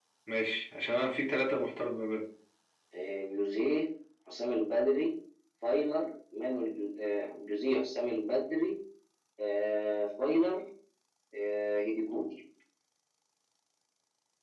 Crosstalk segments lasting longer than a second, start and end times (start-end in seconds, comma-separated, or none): none